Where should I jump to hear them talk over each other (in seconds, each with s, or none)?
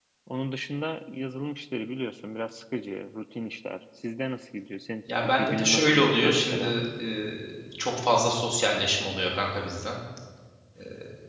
5.1 s